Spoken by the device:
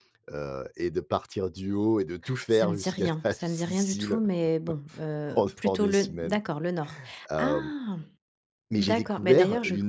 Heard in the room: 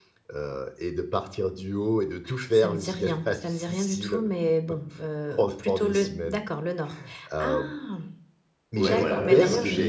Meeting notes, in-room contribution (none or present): present